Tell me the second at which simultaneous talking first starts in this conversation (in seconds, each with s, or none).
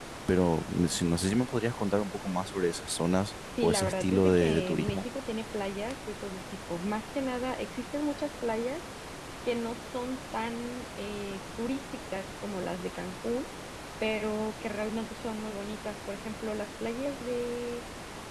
3.6 s